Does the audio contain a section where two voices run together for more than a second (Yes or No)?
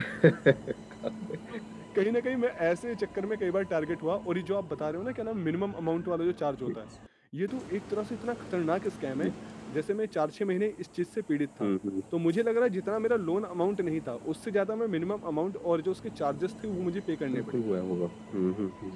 No